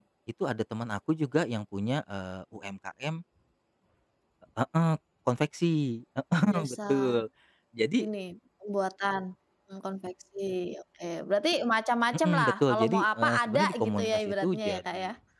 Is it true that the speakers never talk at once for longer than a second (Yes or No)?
No